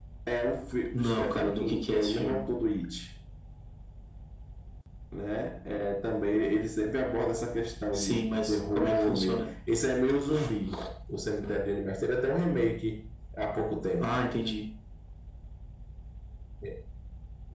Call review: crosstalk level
present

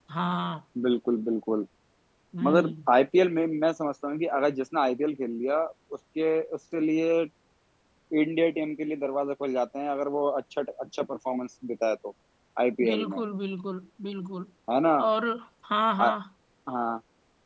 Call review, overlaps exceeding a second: none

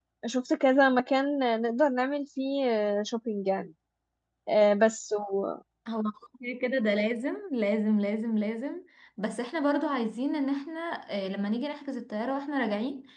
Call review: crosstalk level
none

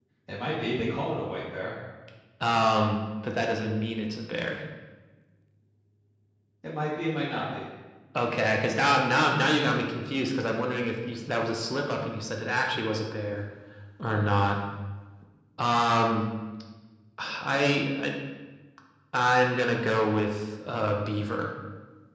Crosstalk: none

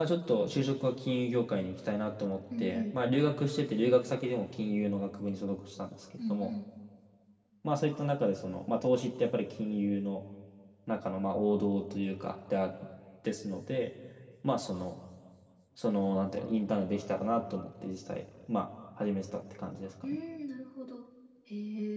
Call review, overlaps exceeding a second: none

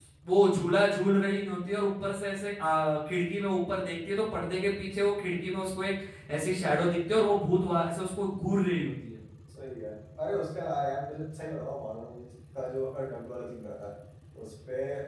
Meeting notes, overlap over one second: none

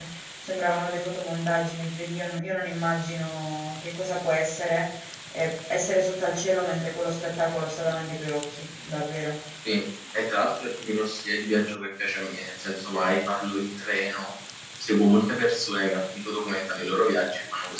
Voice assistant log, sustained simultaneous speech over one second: none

